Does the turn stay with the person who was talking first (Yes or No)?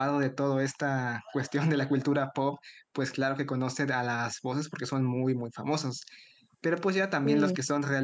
Yes